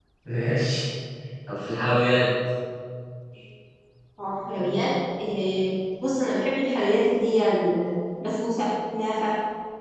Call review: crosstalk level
none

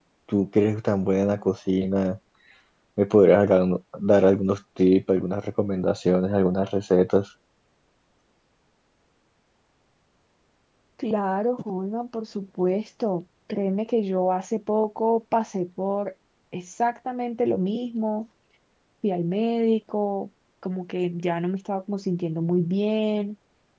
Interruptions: none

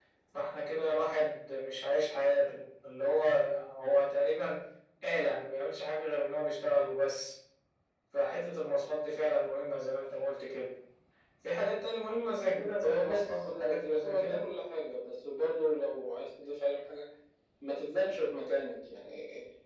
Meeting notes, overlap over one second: present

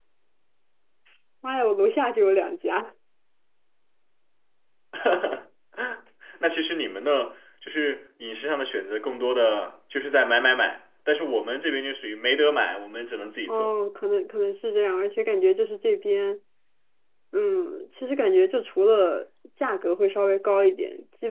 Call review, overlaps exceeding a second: none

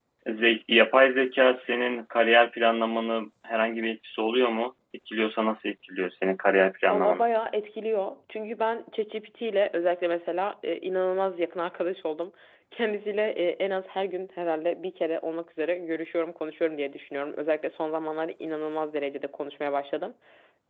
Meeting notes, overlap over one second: none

